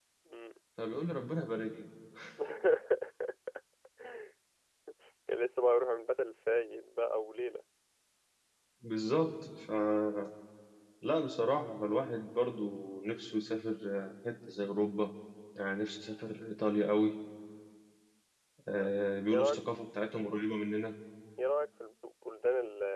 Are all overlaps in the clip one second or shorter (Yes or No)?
Yes